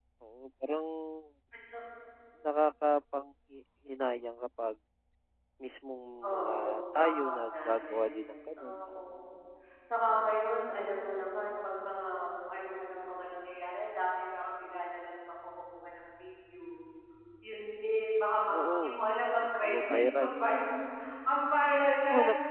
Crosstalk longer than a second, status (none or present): present